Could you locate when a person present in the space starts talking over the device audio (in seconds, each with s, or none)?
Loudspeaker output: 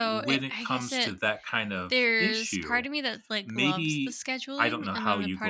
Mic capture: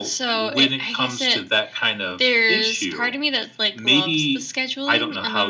none